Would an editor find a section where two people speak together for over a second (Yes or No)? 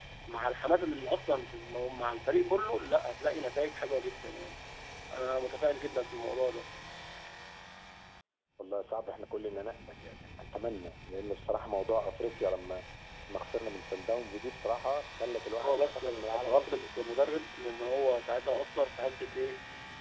Yes